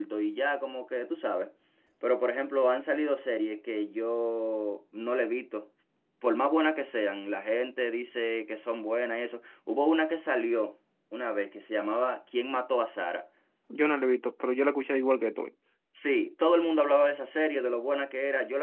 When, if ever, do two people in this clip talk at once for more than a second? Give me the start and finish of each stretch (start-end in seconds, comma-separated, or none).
none